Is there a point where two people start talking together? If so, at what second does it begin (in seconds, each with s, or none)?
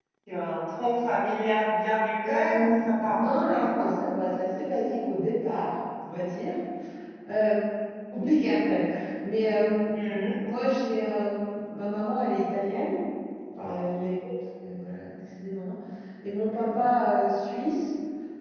2.3 s